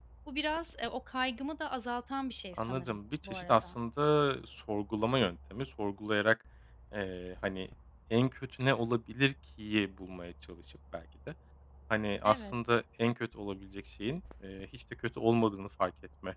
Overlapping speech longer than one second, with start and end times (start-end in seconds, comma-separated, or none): 2.5-3.8